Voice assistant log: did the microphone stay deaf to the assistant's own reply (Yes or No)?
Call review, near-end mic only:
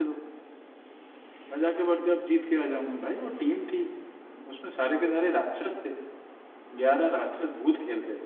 Yes